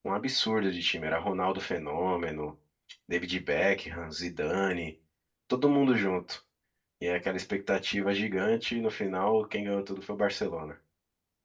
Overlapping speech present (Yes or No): No